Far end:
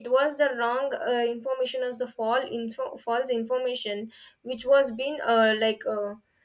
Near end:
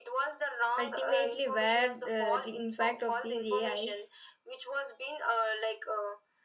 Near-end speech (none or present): present